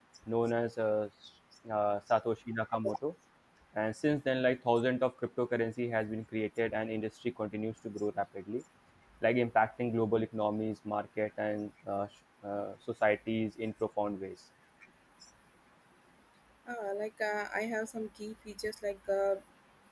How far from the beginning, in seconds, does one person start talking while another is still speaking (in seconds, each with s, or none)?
none